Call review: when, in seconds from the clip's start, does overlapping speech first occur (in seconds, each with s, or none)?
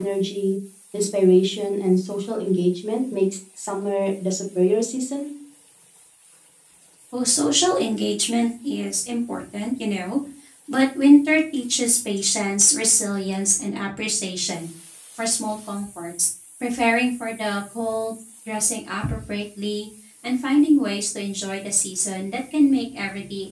none